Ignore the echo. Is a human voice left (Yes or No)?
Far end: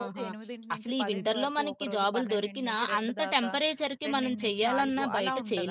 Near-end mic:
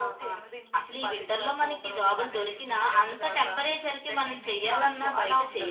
No